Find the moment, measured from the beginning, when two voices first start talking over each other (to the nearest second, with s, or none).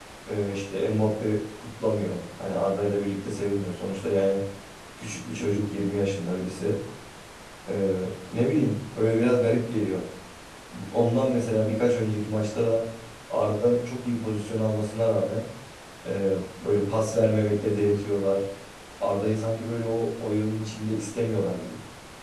none